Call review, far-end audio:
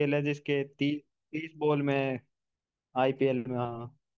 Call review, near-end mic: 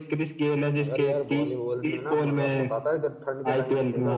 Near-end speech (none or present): present